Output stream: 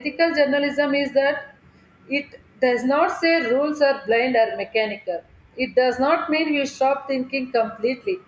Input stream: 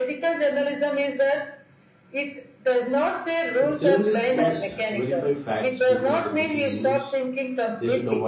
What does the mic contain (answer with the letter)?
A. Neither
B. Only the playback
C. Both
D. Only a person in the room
C